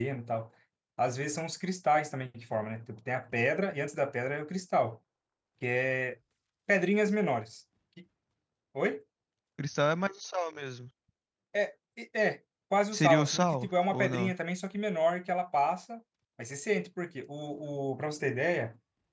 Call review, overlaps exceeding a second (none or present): present